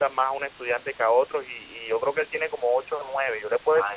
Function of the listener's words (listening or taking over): taking over